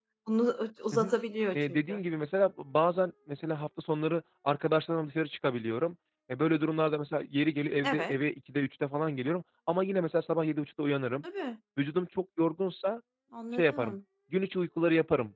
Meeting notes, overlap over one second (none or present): none